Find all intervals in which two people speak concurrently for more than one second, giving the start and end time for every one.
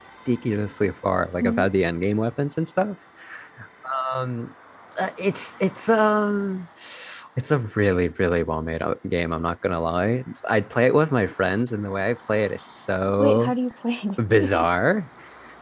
none

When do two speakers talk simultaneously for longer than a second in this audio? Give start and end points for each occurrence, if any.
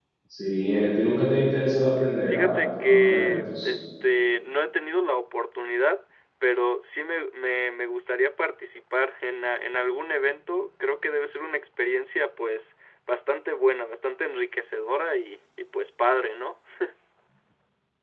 2.3-3.7

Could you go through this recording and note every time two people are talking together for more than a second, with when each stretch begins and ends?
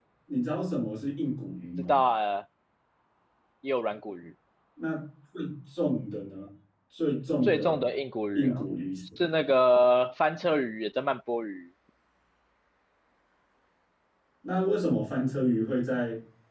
none

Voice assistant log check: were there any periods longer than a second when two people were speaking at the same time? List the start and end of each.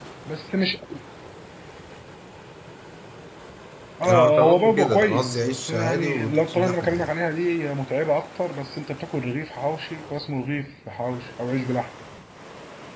4.1-7.1

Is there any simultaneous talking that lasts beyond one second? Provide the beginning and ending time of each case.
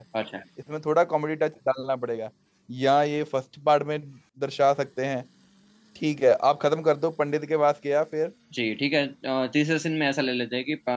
none

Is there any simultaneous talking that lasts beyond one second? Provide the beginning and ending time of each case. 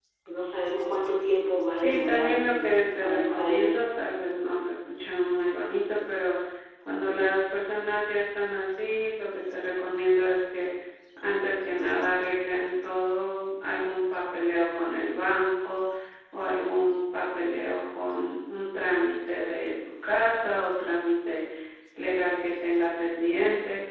1.8-3.9

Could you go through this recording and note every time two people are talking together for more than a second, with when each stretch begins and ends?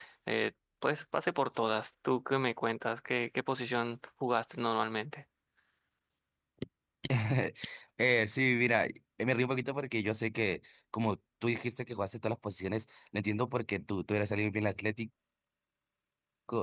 none

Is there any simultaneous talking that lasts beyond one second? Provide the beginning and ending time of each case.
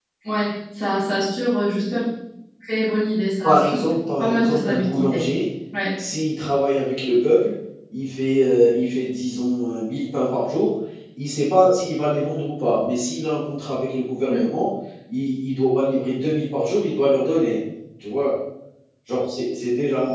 3.4-5.2

